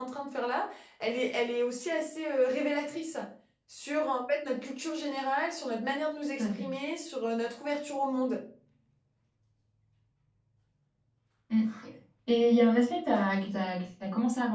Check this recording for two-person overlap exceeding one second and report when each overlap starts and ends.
none

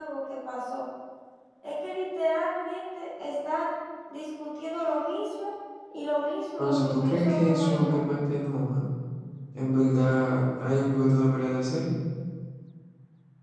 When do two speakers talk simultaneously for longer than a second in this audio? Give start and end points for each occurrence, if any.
6.6-8.2

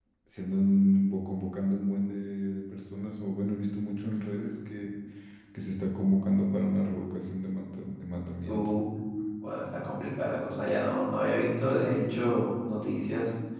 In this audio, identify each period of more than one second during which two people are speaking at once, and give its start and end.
none

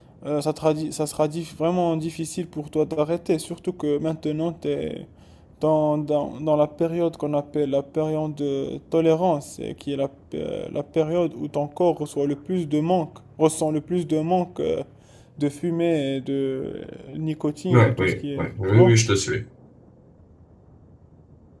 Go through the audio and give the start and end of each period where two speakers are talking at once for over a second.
17.7-19.0

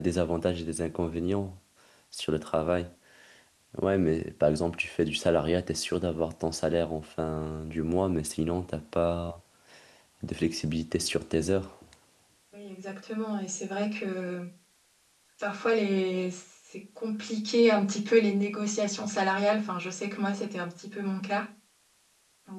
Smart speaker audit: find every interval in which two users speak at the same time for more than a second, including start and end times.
none

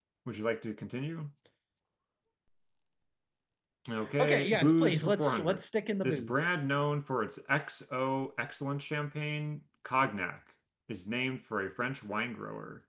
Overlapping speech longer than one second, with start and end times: 4.2-5.6

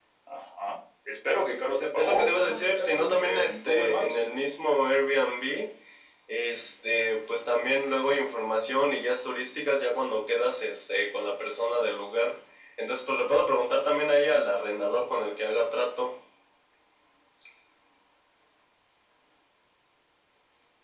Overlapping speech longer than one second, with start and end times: 1.9-4.2

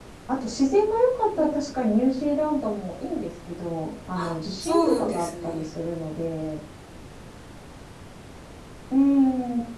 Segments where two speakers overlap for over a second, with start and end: 4.2-5.7

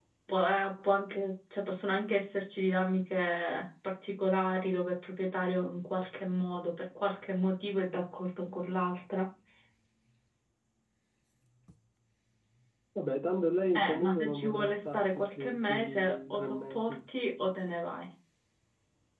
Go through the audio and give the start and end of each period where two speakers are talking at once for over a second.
13.8-17.0

